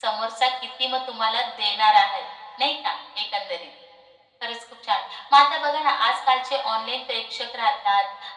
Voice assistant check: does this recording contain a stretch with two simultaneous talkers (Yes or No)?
No